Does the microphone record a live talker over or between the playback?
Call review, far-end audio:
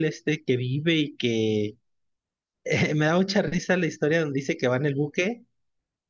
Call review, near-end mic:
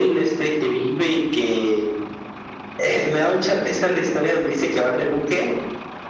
No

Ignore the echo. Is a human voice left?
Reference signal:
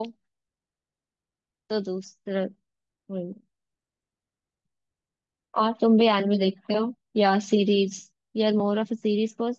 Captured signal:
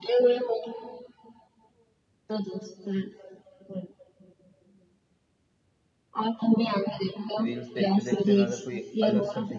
Yes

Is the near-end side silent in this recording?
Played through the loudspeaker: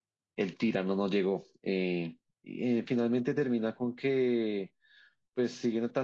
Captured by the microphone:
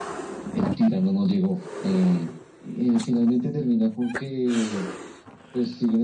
Yes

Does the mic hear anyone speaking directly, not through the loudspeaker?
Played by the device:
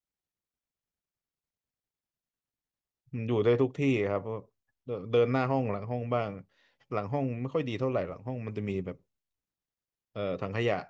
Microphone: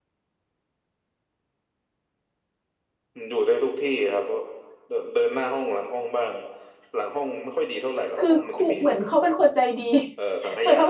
Yes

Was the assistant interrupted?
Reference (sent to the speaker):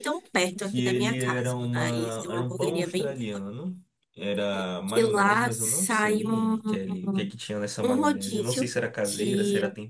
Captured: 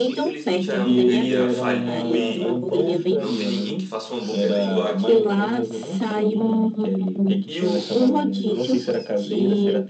Yes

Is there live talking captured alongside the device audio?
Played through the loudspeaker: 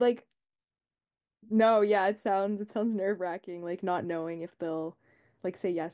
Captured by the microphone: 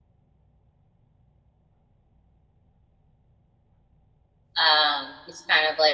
Yes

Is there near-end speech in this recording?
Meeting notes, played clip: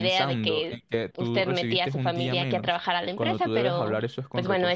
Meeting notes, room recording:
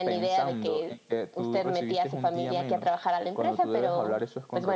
No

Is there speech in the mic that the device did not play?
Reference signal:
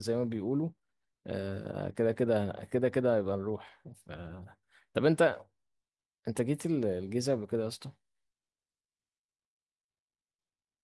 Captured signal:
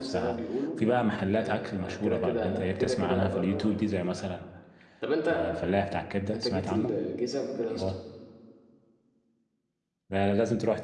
Yes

